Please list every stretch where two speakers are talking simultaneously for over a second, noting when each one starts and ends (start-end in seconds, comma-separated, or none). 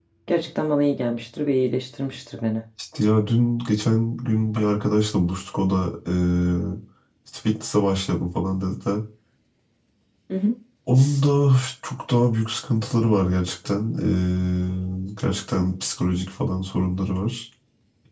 none